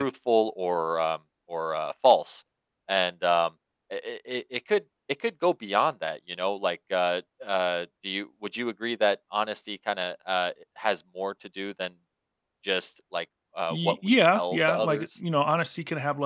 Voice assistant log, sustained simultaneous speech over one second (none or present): present